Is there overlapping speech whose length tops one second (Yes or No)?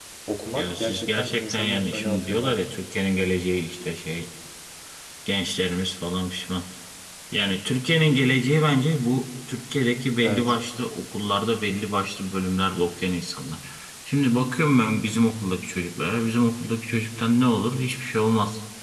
Yes